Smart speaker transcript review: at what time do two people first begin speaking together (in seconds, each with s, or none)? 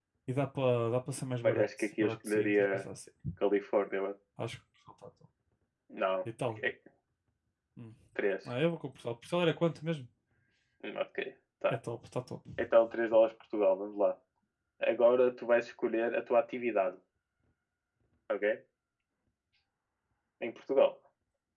1.4 s